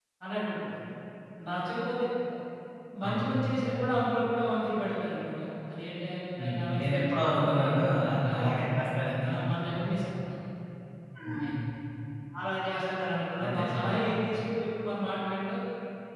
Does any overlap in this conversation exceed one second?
Yes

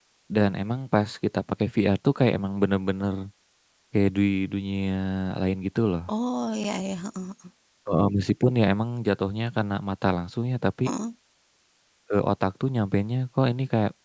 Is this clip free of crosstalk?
Yes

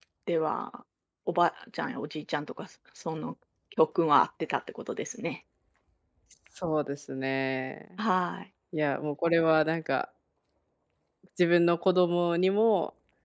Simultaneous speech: No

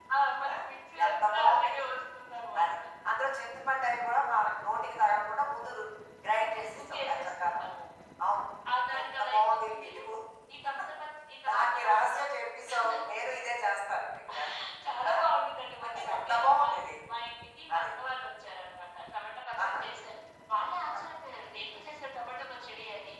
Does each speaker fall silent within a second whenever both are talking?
No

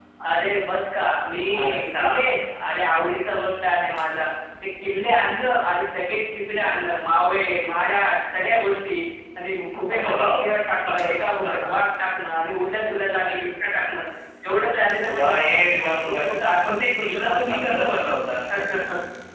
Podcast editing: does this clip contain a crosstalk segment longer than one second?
Yes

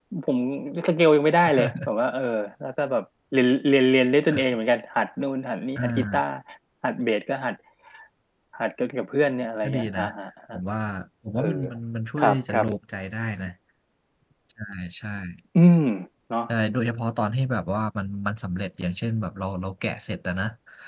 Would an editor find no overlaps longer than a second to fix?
Yes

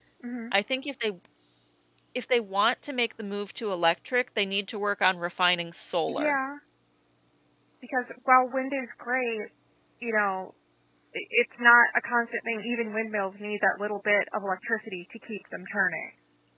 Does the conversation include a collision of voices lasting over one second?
No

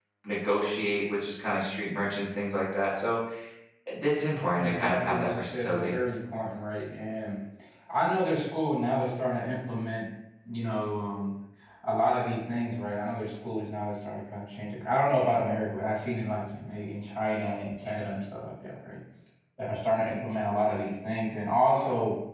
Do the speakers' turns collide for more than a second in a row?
Yes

